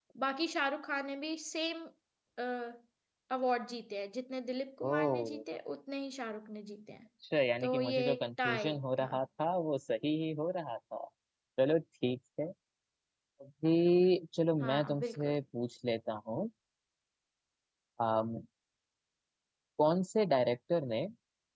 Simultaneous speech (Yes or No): Yes